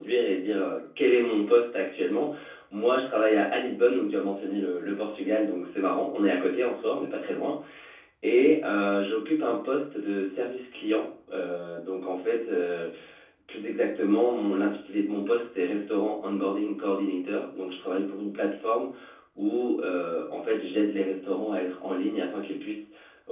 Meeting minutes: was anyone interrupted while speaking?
No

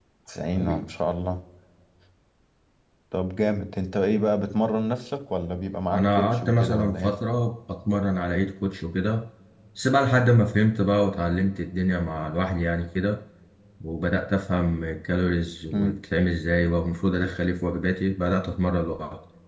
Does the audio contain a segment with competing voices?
Yes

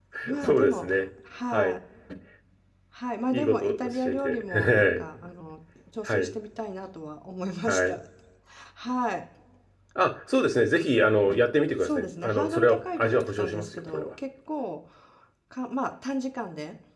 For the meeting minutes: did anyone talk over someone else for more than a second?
Yes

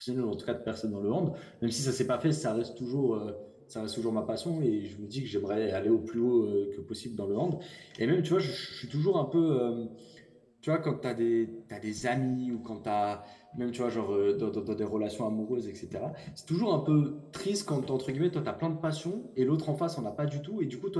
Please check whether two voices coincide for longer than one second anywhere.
No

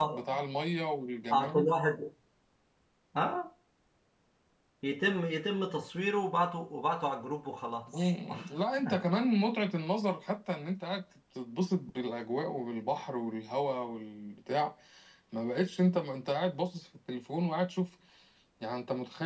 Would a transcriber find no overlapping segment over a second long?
Yes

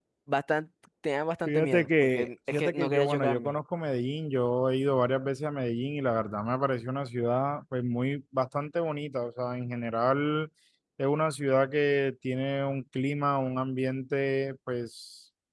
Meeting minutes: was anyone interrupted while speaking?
Yes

